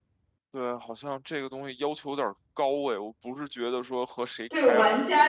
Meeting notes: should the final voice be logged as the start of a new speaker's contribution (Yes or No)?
Yes